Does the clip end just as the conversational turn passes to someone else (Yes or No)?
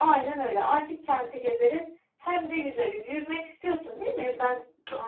Yes